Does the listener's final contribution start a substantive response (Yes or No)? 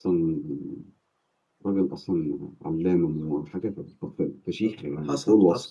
Yes